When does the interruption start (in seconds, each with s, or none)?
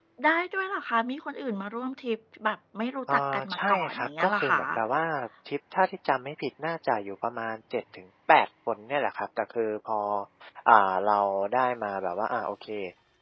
3.1 s